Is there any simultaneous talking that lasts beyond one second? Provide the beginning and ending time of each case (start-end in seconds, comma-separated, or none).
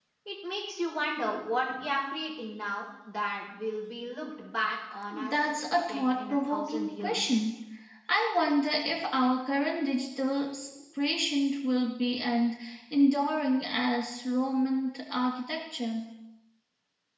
5.1-7.4